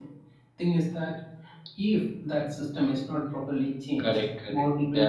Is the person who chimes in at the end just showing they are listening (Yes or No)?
No